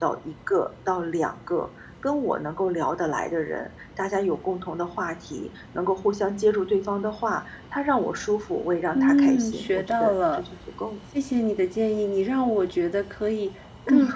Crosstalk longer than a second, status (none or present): present